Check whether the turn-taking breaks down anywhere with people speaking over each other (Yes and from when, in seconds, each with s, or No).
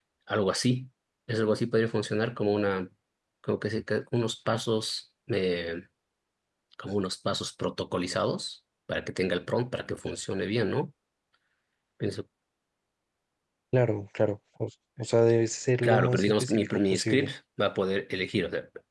Yes, from 15.8 s